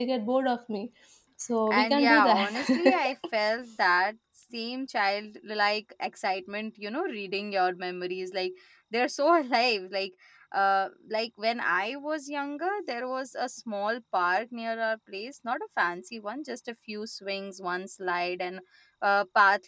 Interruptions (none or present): present